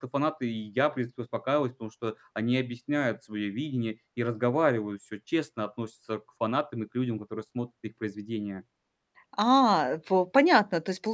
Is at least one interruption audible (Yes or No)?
No